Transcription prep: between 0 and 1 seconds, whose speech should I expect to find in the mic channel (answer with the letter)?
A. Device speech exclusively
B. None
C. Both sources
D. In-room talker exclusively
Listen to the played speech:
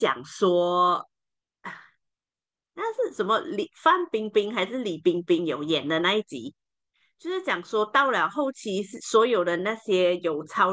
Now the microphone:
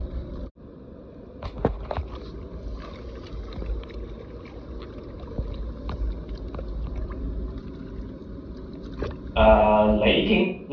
B